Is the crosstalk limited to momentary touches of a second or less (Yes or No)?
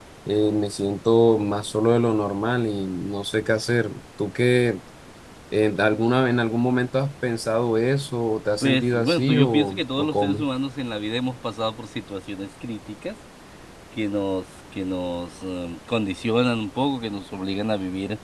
No